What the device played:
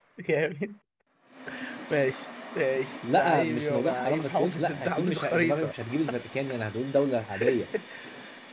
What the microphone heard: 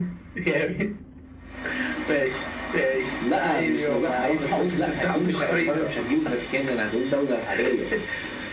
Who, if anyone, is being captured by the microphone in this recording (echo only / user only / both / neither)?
echo only